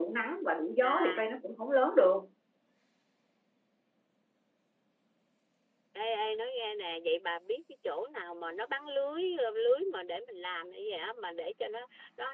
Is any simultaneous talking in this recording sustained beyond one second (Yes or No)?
No